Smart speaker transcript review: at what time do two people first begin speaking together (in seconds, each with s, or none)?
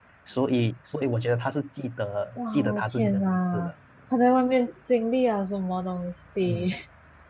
2.4 s